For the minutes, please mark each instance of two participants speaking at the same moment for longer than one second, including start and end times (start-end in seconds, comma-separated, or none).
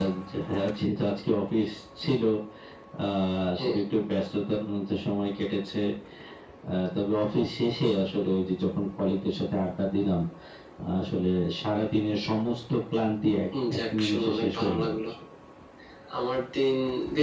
13.7-15.0